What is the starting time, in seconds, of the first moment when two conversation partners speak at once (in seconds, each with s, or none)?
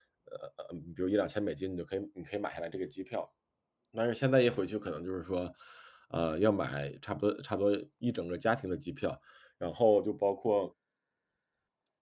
none